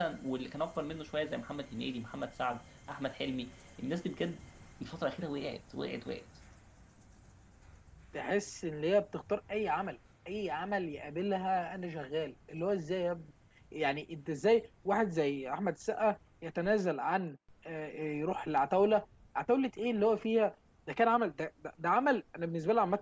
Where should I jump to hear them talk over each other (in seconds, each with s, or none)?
none